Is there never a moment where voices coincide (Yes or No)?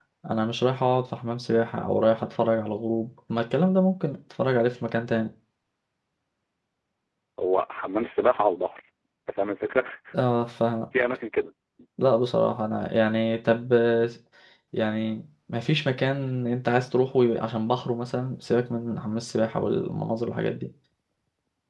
Yes